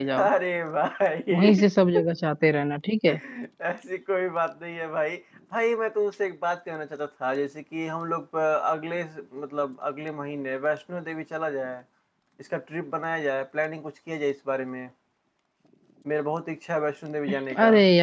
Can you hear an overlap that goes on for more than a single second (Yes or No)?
No